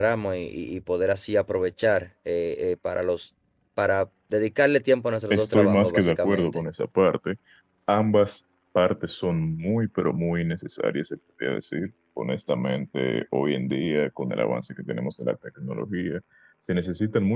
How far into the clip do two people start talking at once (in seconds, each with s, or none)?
5.3 s